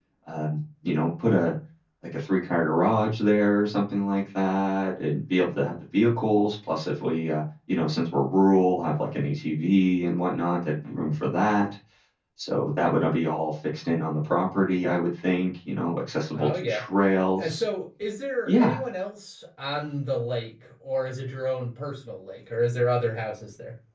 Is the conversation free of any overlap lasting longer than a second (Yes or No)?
Yes